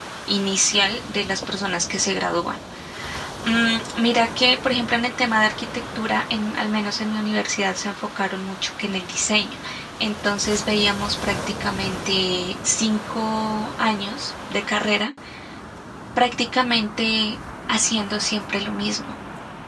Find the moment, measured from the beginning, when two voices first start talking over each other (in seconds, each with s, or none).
none